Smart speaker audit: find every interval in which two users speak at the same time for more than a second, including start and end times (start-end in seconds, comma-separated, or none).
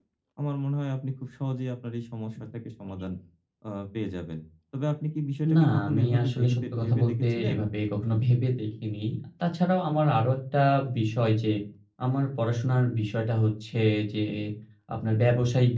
5.5-7.6